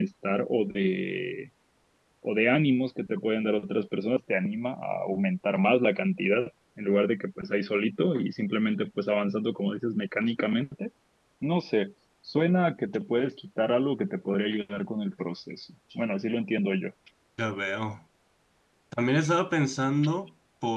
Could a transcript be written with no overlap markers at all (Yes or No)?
Yes